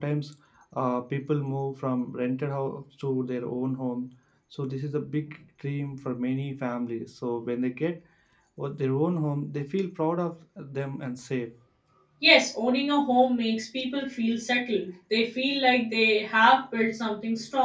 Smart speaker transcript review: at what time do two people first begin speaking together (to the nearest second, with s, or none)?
none